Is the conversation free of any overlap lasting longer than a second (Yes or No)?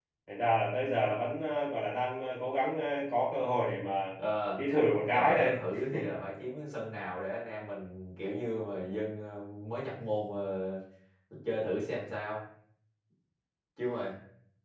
Yes